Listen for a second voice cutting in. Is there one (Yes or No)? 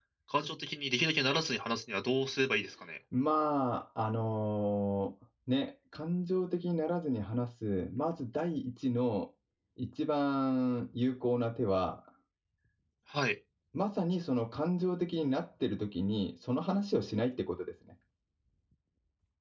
No